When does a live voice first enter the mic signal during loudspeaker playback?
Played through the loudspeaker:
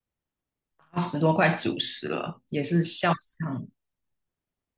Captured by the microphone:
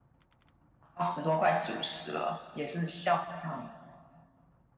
none

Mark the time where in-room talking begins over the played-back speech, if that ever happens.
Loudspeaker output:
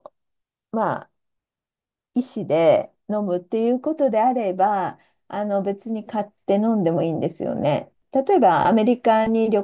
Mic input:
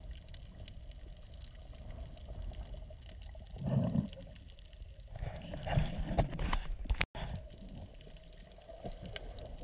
none

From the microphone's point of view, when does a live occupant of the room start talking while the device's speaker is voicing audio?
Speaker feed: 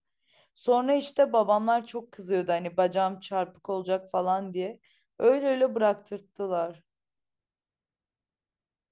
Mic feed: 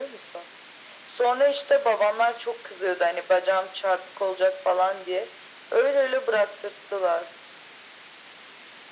none

